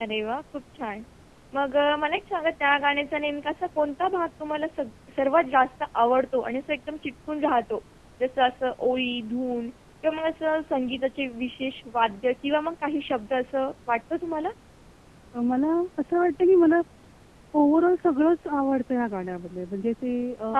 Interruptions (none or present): none